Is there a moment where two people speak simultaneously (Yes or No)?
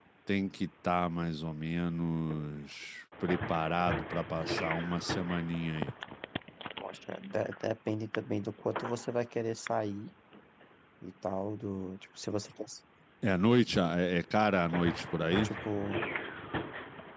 No